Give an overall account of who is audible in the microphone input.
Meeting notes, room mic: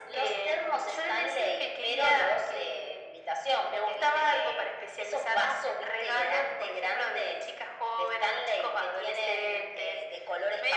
echo only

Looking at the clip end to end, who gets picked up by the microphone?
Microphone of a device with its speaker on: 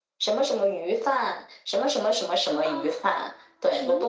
both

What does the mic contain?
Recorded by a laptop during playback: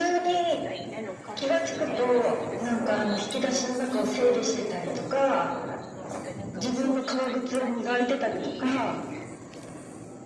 both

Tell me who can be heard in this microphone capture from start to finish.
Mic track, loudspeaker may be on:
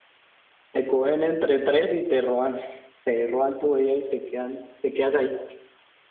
user only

